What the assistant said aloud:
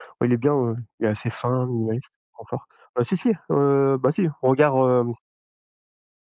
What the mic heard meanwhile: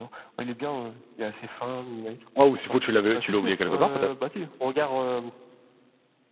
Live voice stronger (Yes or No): Yes